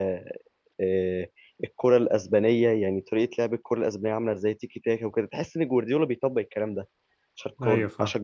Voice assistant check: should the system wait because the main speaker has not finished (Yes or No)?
Yes